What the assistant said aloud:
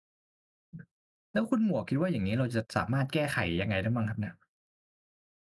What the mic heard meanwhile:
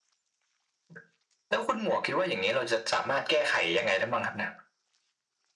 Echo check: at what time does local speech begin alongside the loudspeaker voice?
none

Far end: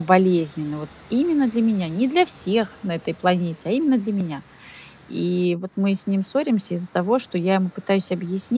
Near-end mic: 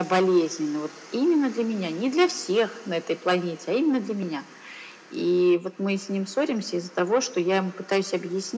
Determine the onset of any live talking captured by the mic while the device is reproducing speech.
none

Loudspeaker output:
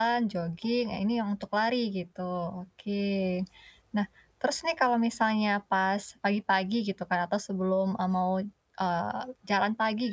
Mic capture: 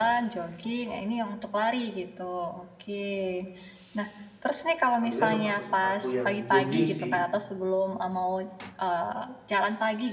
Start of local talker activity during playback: 5 s

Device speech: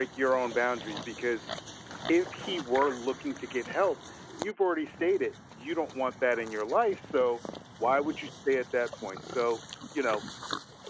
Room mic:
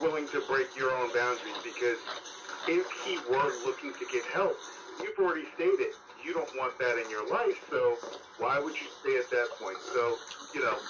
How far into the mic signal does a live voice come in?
none

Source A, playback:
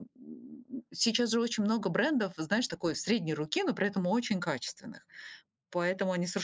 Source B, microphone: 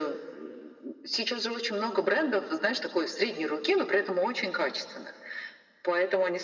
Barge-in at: none

